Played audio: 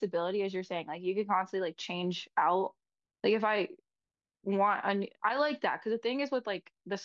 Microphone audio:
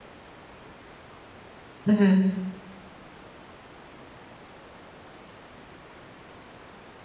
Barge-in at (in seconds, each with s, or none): 1.9 s